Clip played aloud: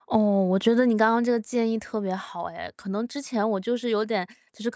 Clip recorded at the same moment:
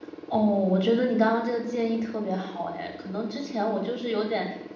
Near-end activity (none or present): none